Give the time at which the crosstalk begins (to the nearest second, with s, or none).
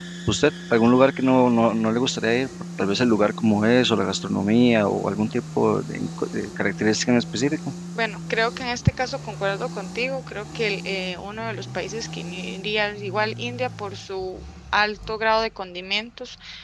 none